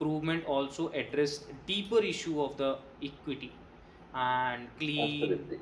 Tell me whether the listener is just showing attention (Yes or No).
Yes